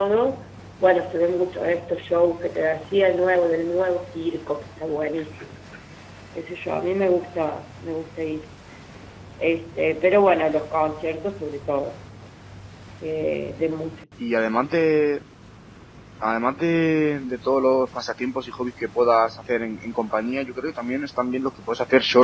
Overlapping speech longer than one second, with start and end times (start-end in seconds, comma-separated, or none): none